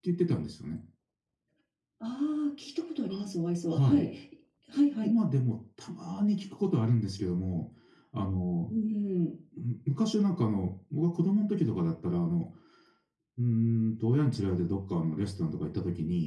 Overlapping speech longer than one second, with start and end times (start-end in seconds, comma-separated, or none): none